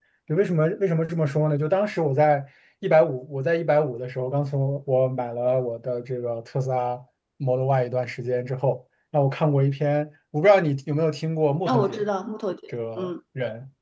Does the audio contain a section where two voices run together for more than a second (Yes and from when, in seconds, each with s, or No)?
No